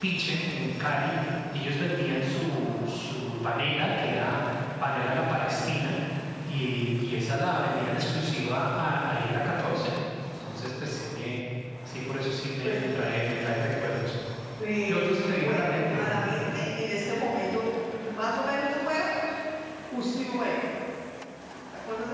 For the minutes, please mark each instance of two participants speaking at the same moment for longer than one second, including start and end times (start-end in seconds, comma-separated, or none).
14.9-16.2